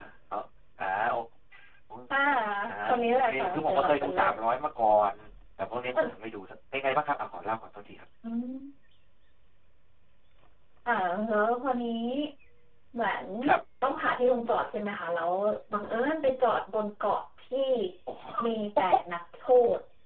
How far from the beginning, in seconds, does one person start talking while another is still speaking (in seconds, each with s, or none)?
2.8 s